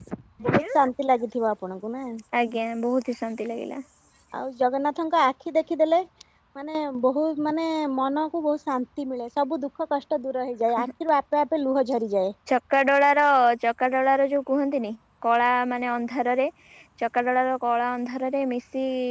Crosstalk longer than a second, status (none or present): none